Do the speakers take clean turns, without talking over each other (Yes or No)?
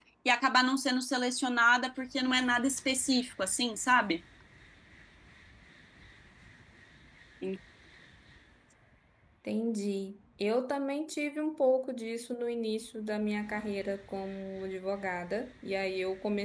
Yes